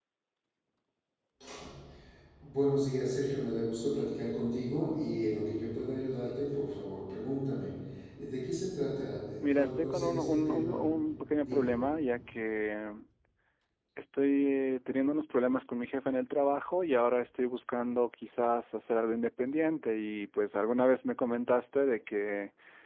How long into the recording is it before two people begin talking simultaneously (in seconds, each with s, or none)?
9.4 s